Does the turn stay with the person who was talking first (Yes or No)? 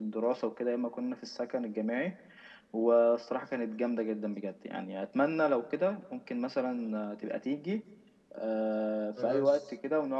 Yes